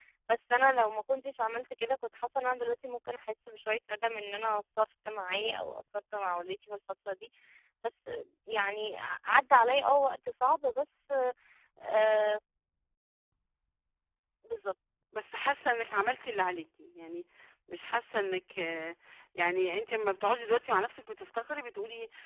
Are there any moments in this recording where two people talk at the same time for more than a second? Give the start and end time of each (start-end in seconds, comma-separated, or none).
none